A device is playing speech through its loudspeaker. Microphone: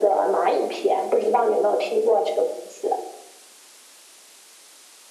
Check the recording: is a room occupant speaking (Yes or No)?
No